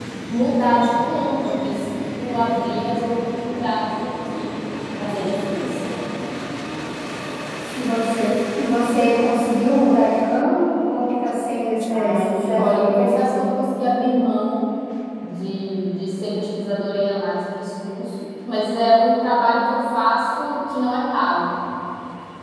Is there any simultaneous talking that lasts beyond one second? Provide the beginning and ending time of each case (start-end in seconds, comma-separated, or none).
11.9-13.2